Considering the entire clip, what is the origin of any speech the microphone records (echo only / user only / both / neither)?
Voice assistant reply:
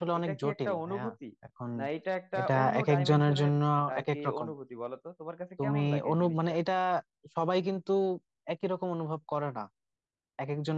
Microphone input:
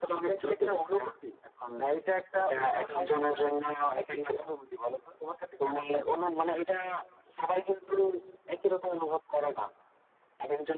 echo only